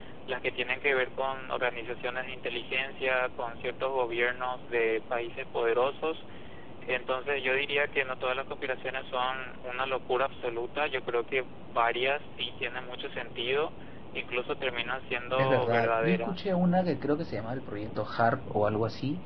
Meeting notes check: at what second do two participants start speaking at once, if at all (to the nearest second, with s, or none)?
15 s